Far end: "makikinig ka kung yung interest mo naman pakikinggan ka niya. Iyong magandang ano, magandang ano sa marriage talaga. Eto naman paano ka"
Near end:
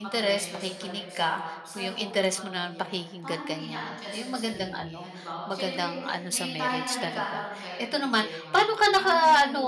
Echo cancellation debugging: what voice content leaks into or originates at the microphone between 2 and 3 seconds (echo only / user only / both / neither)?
both